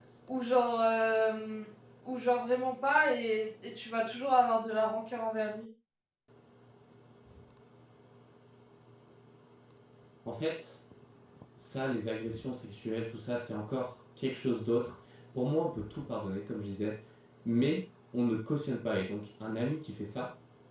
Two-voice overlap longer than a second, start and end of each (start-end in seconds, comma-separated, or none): none